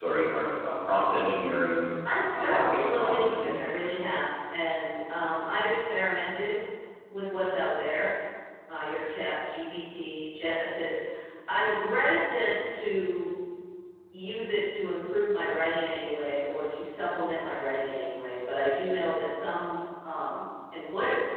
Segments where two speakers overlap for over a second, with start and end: 2.0-3.9

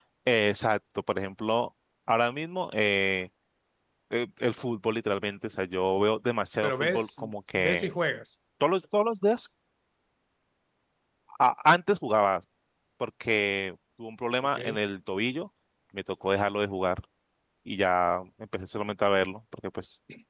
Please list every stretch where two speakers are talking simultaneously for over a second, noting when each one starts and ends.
6.6-7.9

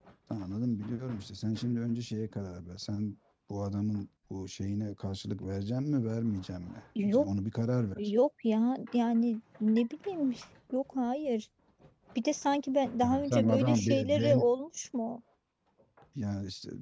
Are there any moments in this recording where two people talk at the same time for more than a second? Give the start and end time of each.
13.0-14.5

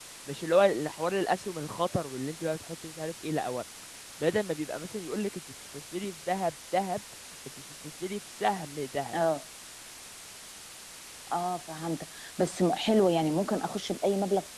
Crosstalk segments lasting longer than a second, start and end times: none

